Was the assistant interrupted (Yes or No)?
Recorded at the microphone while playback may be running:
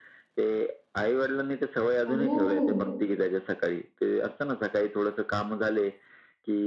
Yes